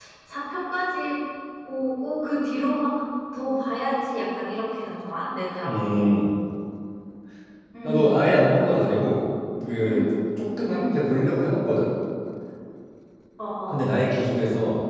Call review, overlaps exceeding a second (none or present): none